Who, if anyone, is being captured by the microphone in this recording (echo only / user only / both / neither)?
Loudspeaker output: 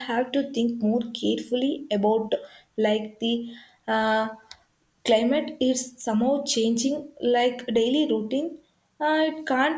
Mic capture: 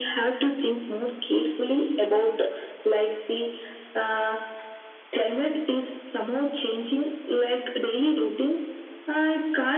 echo only